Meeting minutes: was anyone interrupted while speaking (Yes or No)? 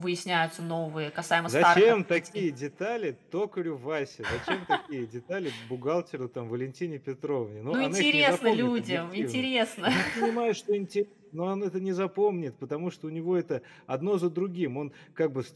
Yes